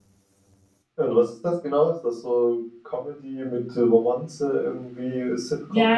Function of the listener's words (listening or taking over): taking over